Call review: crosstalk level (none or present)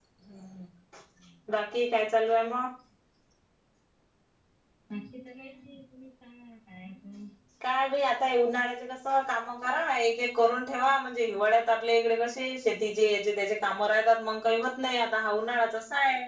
none